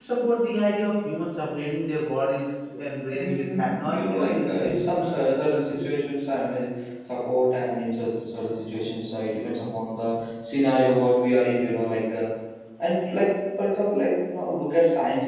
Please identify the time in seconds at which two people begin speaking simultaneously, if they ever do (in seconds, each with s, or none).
3.1 s